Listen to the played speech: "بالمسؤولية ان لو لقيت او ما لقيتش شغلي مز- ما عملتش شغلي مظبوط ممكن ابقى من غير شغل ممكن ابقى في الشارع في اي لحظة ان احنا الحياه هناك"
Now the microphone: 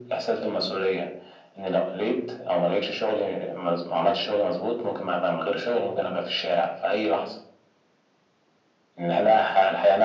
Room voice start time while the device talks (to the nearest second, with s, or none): none